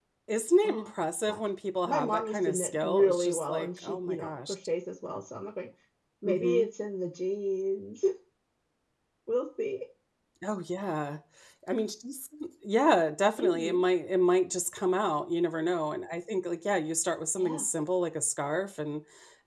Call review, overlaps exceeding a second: present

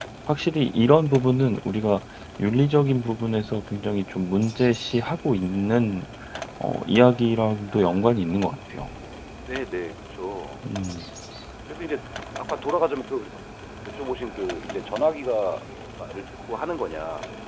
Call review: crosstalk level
none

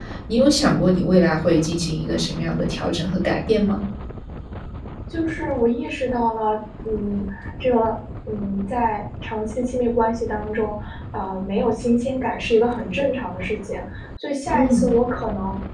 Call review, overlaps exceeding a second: none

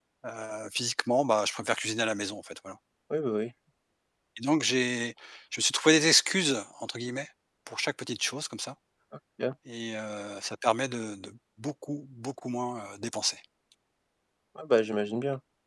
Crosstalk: none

